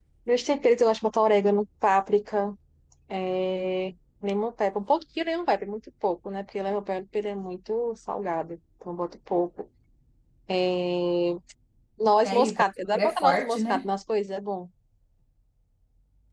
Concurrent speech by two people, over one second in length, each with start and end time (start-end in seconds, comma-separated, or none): 12.2-13.9